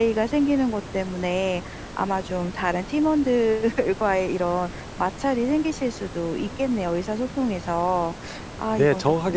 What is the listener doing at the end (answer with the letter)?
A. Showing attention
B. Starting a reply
B